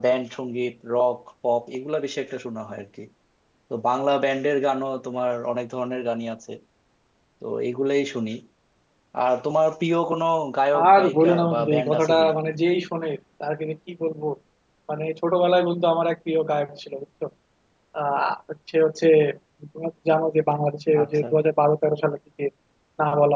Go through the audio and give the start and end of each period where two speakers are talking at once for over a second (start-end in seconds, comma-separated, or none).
10.8-12.3